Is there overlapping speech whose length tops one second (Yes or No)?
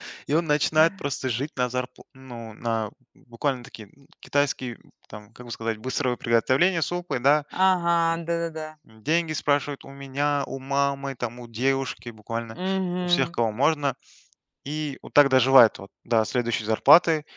No